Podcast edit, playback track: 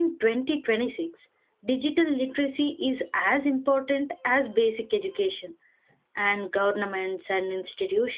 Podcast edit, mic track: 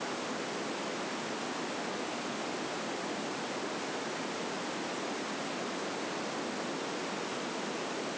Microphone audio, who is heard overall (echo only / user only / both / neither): neither